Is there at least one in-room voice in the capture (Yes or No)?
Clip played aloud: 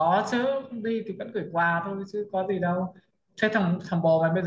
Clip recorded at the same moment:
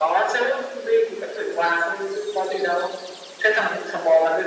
No